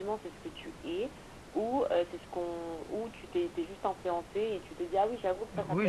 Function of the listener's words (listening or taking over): taking over